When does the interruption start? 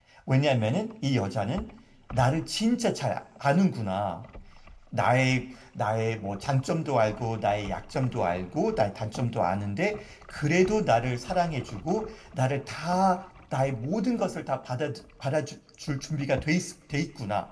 none

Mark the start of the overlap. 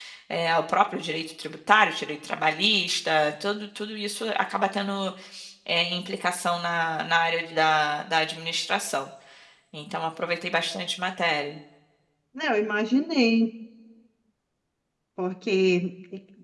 none

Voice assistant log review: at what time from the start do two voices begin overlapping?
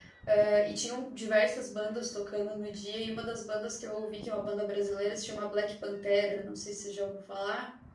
none

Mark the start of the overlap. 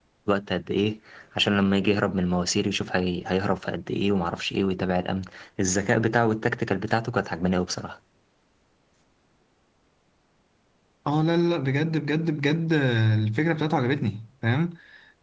none

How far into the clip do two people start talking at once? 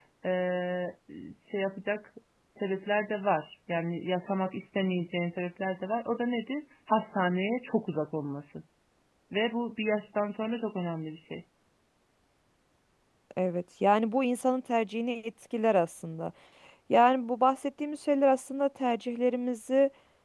none

